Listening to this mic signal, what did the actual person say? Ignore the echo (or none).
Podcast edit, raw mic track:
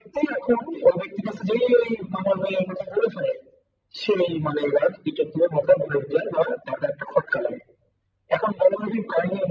none